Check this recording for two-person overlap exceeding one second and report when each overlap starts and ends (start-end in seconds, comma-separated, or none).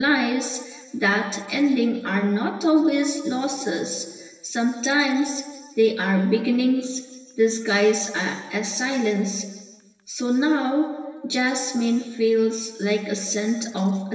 none